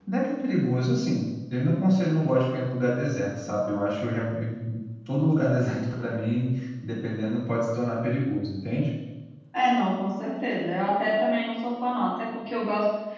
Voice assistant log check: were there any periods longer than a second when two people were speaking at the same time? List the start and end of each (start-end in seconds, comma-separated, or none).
none